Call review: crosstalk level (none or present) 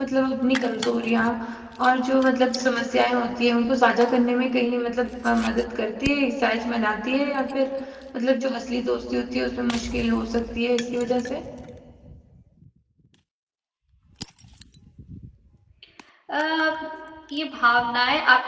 none